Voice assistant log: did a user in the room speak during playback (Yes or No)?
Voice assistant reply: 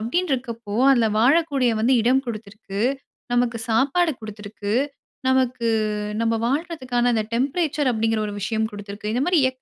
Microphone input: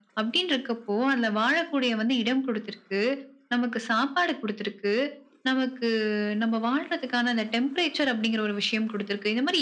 No